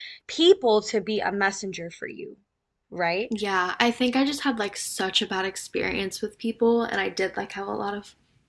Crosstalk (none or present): none